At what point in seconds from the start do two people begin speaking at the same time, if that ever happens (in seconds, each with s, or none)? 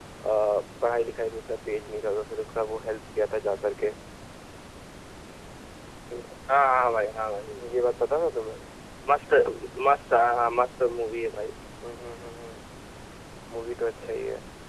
none